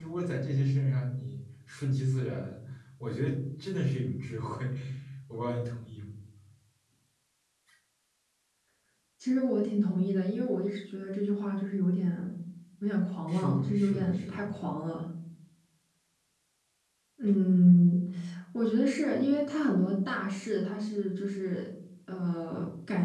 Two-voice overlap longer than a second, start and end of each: 13.3-14.5

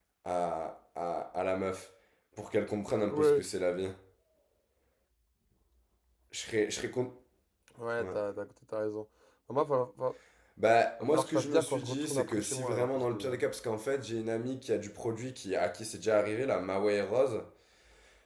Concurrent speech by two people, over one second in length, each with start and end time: 11.0-13.4

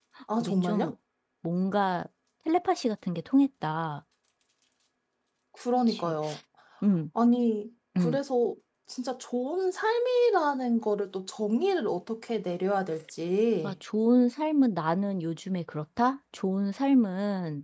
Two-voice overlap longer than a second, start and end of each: none

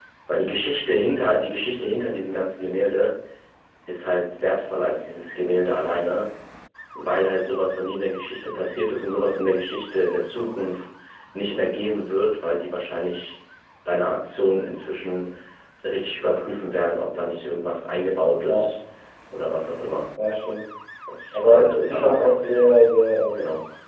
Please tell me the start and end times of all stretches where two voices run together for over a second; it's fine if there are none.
21.3-22.6

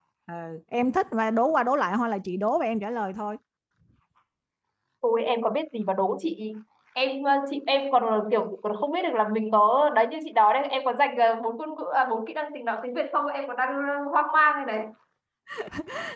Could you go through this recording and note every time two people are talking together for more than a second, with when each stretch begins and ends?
none

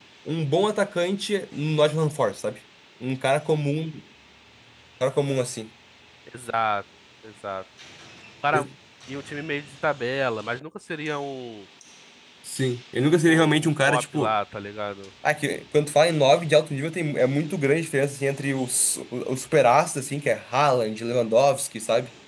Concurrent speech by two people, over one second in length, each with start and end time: 13.0-14.3

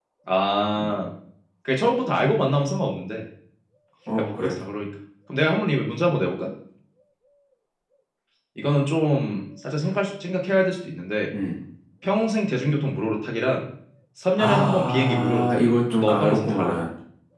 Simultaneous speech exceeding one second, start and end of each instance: 14.4-16.8

